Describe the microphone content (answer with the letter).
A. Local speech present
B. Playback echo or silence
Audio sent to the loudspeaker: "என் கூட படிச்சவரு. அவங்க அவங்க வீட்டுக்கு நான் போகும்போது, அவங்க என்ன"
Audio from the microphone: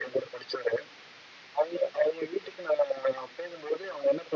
B